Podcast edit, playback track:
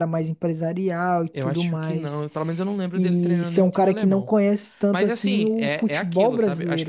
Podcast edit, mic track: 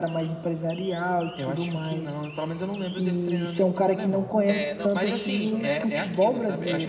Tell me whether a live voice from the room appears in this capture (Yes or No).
Yes